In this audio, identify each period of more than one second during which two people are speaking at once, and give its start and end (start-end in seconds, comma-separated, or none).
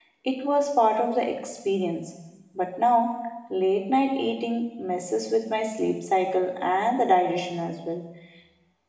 none